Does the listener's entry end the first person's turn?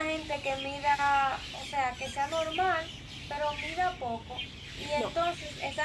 No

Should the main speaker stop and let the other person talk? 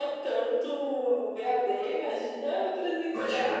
Yes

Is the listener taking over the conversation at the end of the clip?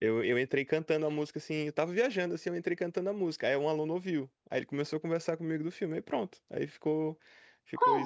Yes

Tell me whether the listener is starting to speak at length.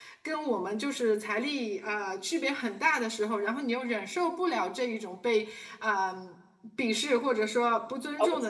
No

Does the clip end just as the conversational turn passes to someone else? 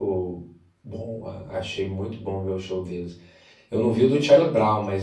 No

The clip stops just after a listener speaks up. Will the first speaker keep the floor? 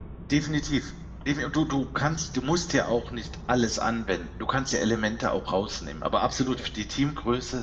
Yes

